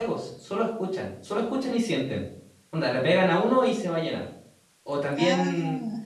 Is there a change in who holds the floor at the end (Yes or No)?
No